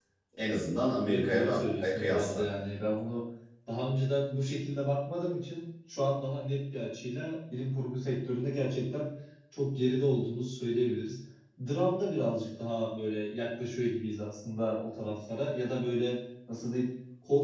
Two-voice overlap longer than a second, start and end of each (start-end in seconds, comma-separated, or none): 1.1-2.5